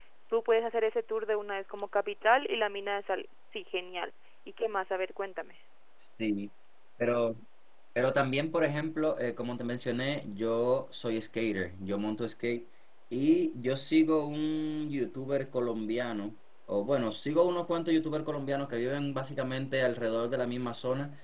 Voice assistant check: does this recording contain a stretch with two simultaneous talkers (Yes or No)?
No